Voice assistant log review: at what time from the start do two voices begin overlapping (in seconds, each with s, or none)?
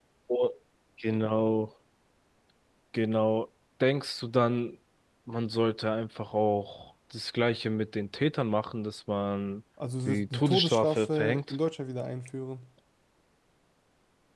10.1 s